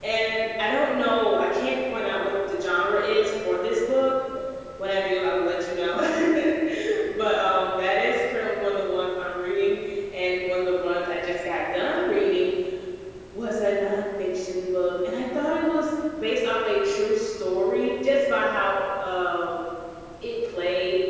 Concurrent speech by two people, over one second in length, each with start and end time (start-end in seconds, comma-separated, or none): none